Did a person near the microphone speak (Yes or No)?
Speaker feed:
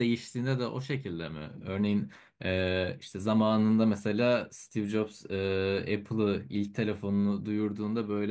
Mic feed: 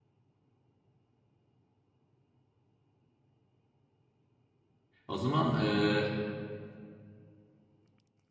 Yes